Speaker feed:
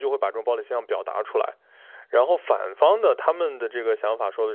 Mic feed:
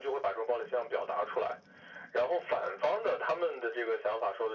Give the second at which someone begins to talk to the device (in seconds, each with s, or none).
none